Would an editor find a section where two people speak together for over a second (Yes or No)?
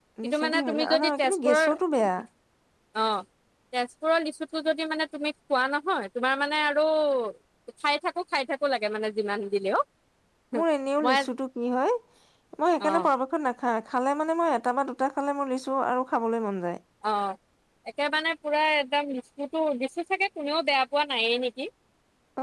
Yes